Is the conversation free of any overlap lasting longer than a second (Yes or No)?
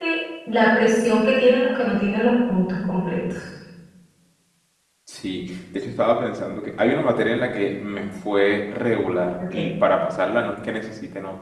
Yes